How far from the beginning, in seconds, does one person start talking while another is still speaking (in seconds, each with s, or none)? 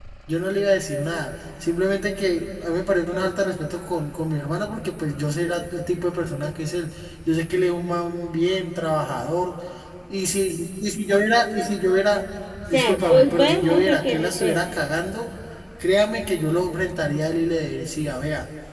12.6 s